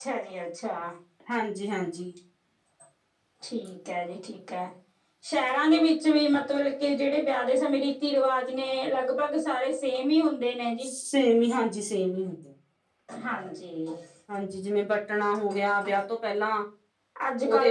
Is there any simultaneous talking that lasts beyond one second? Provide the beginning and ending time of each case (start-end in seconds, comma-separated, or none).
none